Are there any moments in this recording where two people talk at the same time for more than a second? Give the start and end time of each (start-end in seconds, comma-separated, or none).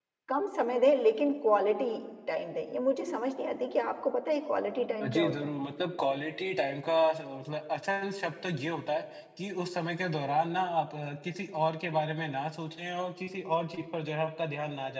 none